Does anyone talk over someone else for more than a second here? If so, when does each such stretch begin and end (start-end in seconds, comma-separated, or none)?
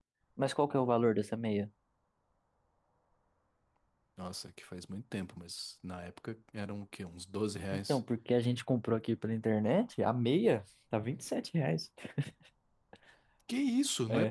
none